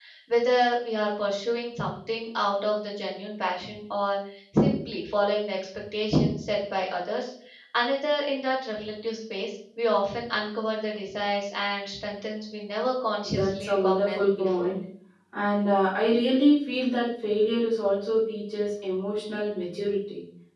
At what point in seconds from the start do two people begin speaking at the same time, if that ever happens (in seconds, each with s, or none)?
13.2 s